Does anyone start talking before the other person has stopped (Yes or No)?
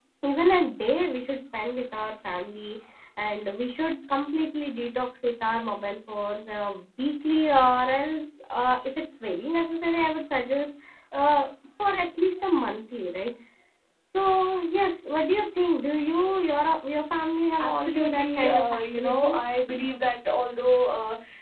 Yes